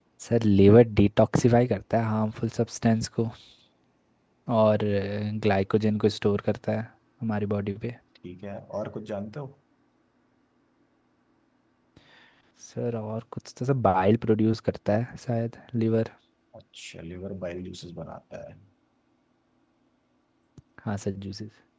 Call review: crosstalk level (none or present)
none